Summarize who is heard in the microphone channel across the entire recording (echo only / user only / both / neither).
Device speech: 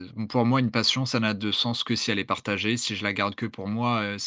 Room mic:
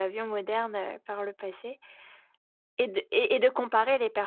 user only